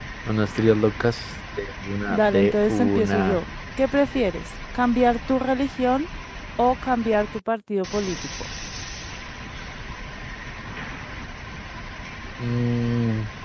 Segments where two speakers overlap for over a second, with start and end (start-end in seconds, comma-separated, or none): 2.1-3.4